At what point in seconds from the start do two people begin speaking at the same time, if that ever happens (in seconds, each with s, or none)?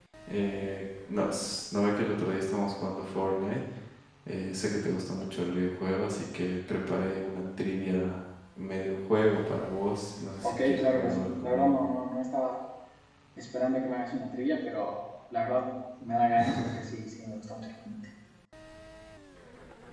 10.5 s